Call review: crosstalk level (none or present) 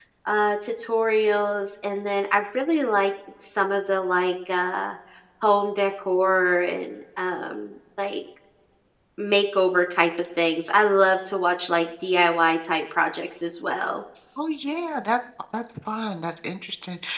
none